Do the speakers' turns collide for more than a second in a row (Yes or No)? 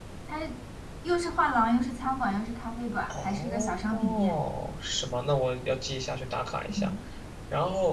Yes